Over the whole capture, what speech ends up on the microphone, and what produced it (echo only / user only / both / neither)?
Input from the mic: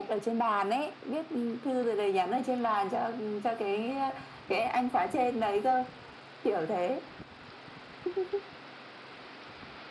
echo only